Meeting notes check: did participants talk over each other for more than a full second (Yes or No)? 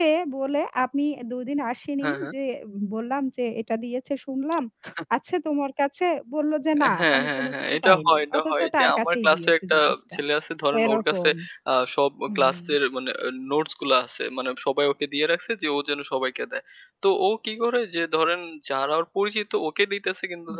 Yes